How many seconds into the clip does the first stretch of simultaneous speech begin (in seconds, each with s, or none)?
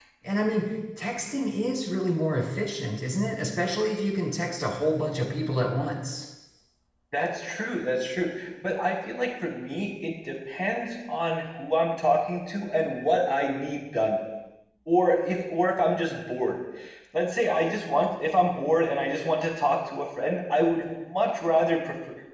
none